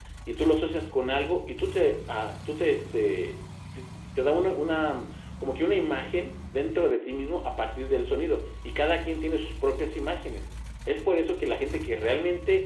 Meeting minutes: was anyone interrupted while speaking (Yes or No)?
No